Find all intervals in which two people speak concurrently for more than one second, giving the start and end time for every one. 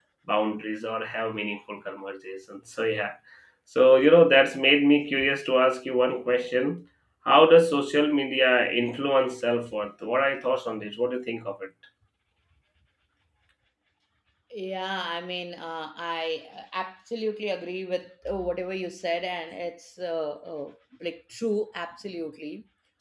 none

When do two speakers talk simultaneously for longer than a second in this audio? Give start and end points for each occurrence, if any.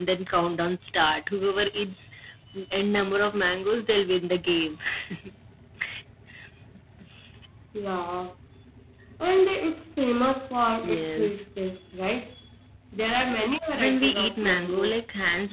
13.7-15.0

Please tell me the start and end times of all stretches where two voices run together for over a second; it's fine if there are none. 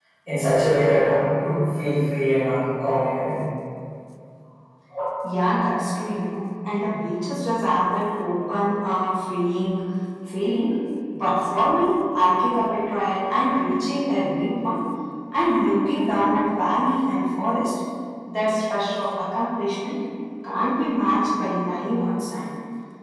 none

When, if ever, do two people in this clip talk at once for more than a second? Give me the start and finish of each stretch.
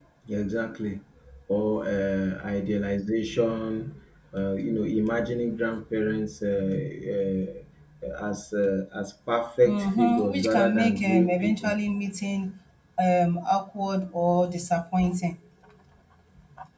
9.6-11.8

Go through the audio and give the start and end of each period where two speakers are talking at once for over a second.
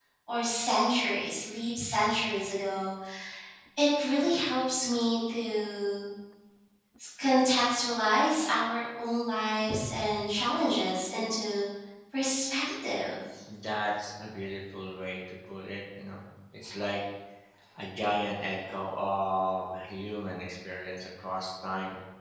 none

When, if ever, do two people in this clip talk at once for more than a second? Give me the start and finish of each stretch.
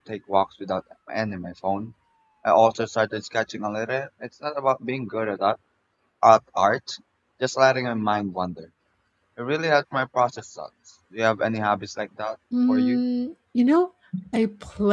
none

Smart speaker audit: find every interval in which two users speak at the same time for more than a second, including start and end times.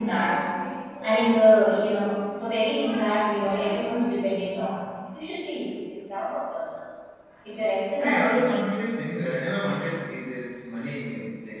none

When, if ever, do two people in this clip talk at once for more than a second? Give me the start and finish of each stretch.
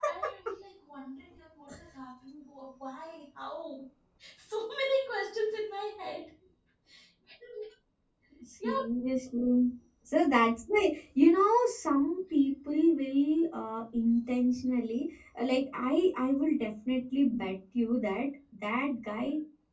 none

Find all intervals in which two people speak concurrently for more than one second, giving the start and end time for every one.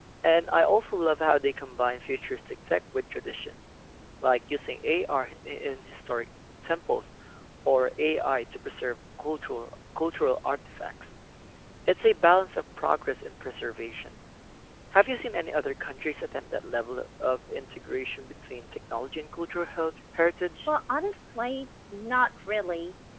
none

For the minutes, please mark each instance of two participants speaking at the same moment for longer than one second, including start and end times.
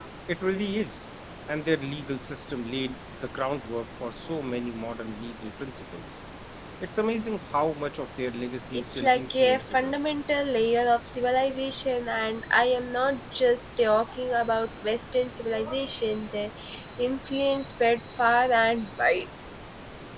8.7-10.2

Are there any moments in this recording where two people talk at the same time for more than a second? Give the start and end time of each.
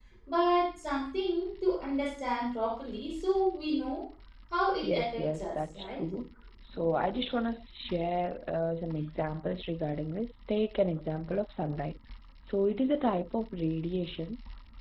4.8-6.0

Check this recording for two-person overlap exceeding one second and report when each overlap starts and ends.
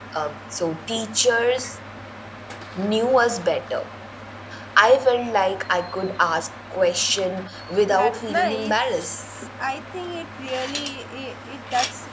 7.9-9.2

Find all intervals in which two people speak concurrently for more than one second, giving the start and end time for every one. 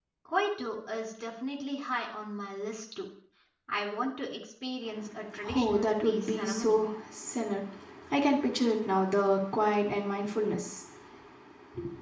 5.5-6.8

